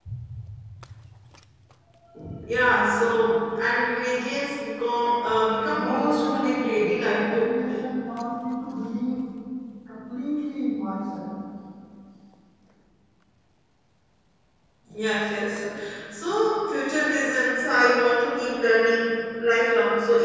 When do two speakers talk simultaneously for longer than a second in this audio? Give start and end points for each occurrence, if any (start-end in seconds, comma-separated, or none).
5.7-7.6